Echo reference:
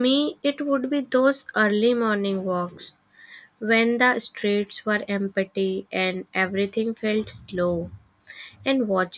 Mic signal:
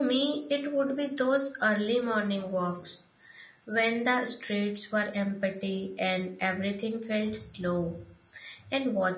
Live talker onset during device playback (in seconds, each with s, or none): none